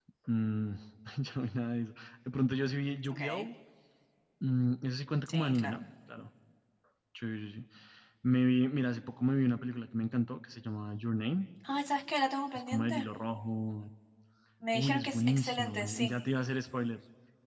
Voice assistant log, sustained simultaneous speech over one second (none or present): present